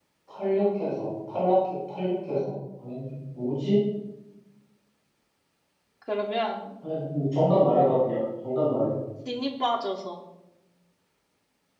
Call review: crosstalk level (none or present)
none